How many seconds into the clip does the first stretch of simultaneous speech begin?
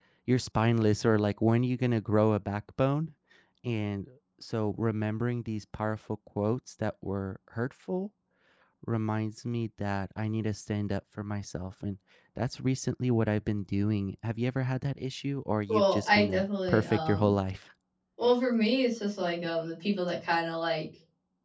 15.7 s

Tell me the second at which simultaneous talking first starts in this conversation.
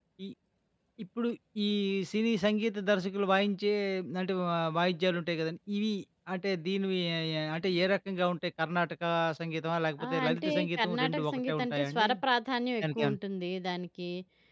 10.1 s

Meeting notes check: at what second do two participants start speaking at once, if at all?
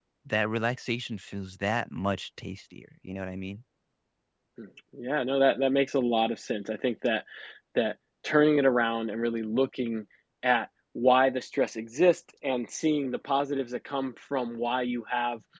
none

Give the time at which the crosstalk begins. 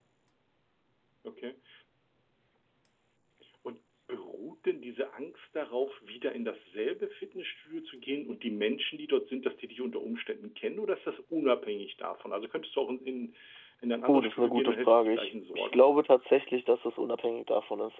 14.1 s

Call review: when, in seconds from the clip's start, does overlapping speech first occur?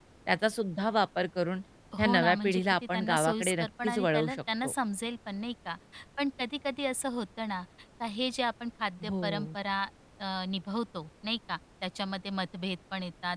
2.0 s

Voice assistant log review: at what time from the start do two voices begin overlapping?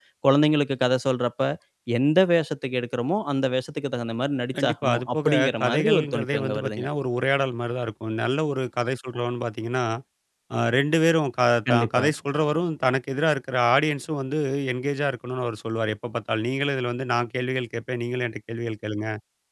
4.5 s

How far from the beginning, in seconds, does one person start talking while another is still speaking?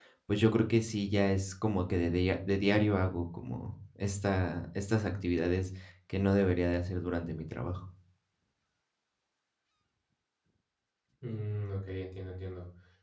none

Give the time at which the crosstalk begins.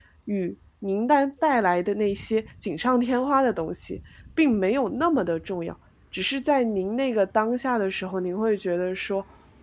none

